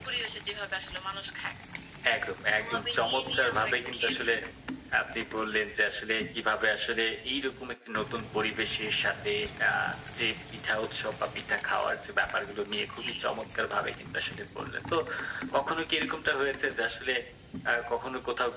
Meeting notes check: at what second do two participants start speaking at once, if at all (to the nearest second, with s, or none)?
3 s